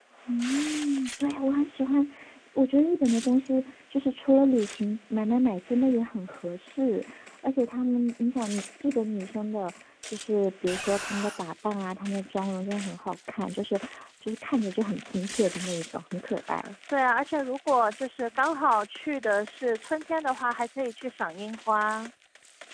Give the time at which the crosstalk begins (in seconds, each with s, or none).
none